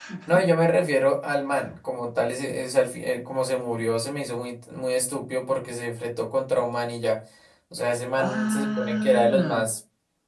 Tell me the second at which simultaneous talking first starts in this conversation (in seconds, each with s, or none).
8.2 s